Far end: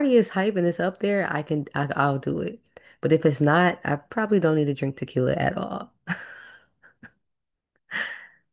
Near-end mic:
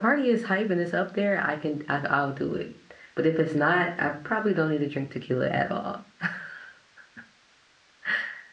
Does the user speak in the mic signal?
No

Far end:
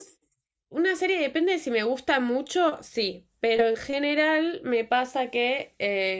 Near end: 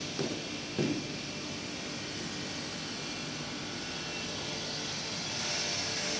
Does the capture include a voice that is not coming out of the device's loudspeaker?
No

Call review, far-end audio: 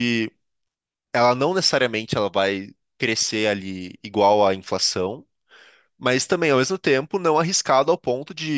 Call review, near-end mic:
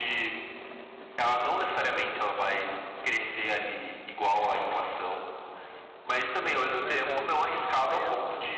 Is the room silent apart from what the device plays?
No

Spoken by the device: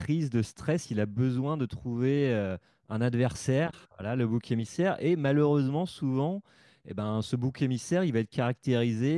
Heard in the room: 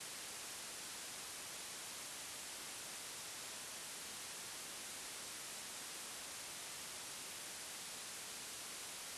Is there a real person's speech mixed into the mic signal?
No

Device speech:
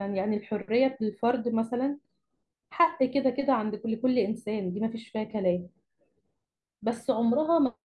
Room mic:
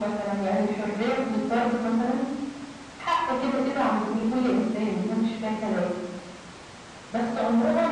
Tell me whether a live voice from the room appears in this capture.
No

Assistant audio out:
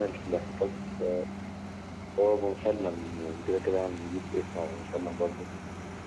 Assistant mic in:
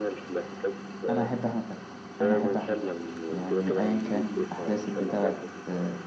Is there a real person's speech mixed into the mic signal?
Yes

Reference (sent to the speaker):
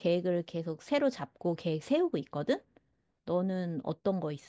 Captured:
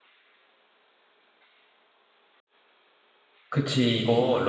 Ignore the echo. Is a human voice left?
Yes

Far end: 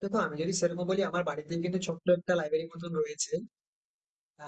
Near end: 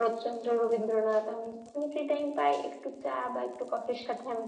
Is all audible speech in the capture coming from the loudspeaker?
No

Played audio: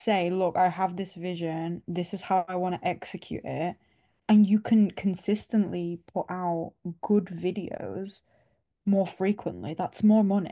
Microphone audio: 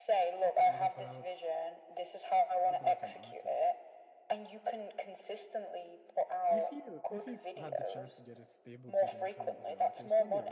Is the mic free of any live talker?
No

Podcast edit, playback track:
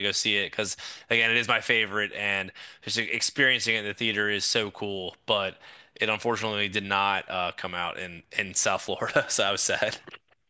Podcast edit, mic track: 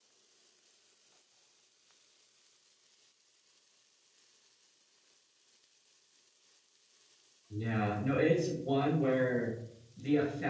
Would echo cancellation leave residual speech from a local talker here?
Yes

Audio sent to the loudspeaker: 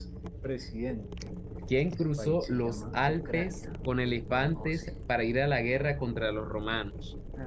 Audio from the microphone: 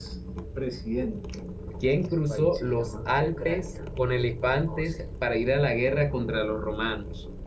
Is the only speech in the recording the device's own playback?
Yes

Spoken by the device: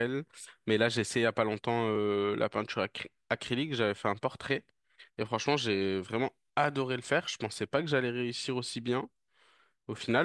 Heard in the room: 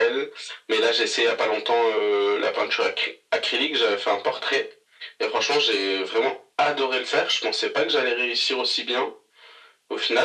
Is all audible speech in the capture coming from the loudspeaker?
Yes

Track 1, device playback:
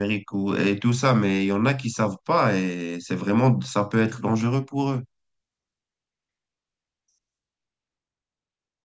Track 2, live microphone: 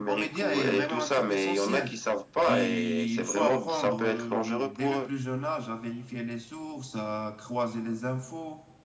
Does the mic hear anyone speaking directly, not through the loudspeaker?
Yes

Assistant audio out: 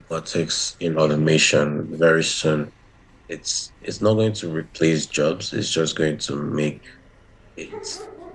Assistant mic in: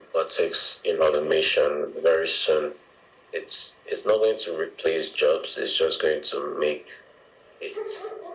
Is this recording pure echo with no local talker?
Yes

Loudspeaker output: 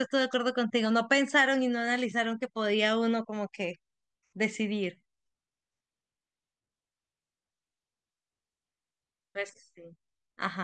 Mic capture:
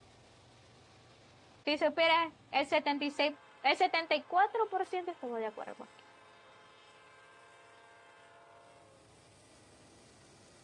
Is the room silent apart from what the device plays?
No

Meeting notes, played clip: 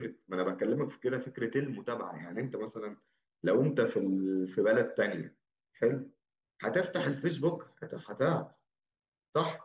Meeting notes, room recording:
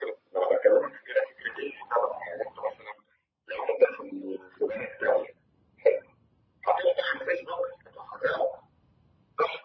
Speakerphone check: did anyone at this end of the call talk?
No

